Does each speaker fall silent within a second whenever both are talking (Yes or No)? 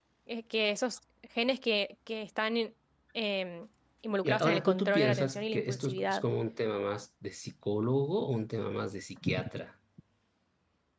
No